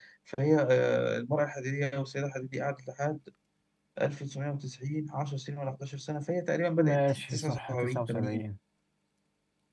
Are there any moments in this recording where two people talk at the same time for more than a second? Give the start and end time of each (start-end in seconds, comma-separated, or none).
6.8-8.4